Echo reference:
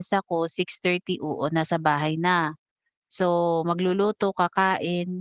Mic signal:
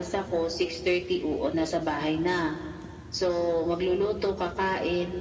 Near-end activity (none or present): none